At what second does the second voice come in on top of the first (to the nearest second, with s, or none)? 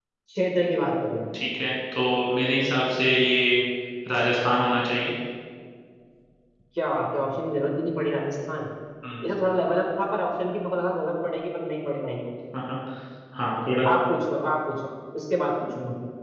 none